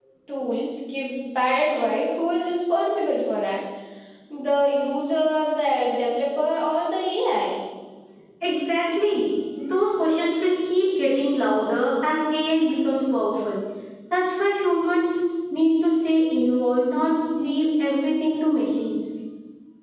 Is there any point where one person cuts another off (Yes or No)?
No